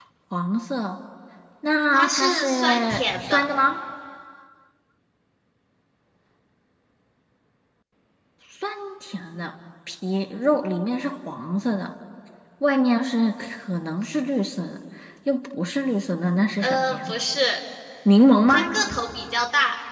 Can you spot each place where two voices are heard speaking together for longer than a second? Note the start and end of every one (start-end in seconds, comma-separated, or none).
1.9-3.5